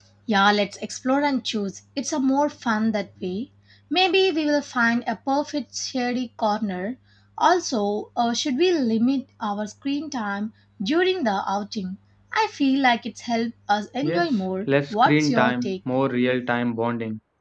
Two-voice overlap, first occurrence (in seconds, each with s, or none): 14.0 s